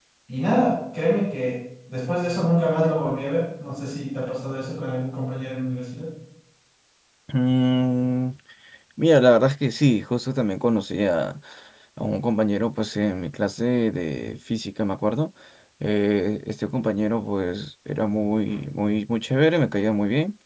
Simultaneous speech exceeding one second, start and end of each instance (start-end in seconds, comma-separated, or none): none